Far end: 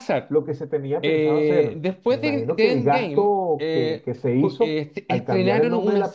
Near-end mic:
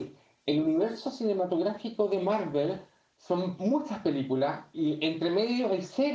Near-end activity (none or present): present